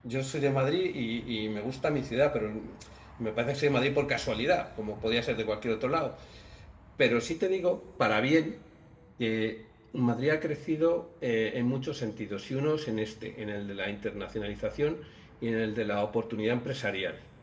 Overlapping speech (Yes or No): No